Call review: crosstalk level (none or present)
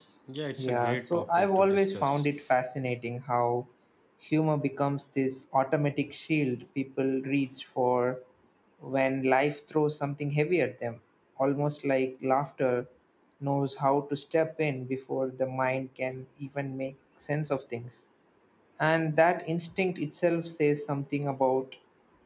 present